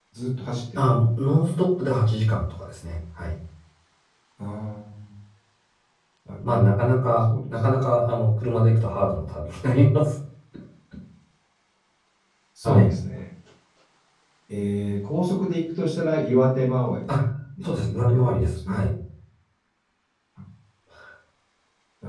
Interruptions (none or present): present